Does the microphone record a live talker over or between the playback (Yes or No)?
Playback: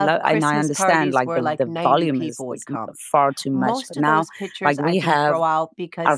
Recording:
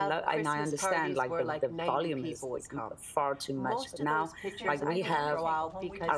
Yes